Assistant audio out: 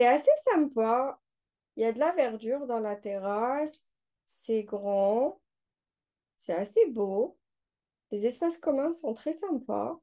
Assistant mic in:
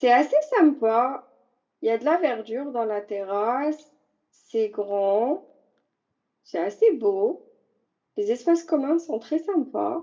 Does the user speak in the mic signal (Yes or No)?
No